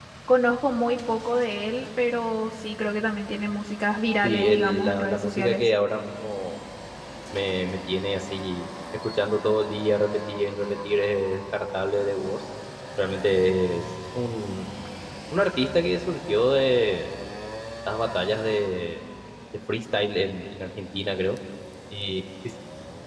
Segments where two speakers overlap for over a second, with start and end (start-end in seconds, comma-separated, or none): 4.2-5.7